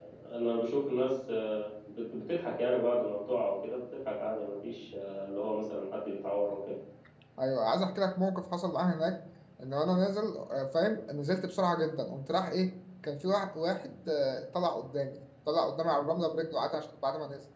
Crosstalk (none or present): none